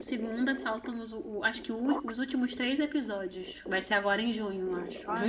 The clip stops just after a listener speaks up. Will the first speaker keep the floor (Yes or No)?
No